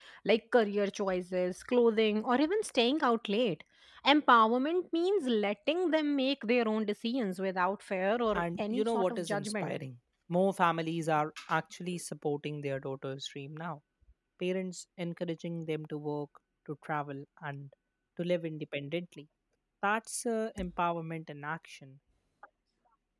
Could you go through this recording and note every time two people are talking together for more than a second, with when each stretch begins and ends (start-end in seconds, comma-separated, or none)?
8.3-9.7